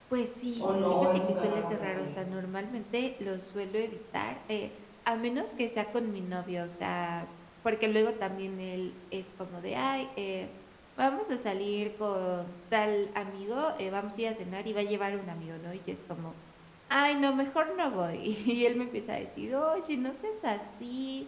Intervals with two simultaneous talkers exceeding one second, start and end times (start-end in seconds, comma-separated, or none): 0.6-2.1